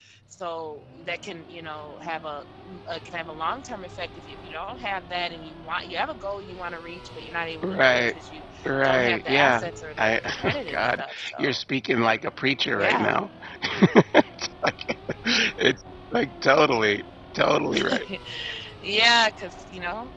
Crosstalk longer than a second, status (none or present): present